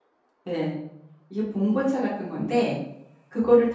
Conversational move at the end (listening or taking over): listening